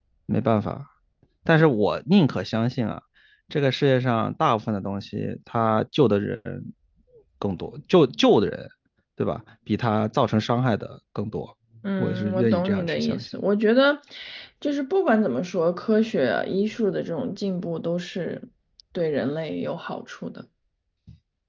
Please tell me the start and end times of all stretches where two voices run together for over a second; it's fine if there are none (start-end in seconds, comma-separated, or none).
12.0-13.4